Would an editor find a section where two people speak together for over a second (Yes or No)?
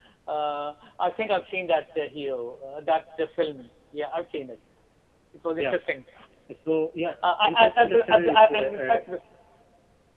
Yes